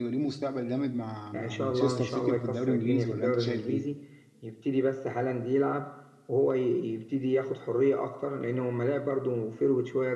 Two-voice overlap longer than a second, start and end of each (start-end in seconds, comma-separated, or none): 1.3-3.8